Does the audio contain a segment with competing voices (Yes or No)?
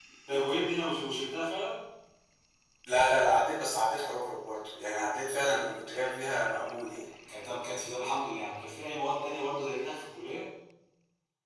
No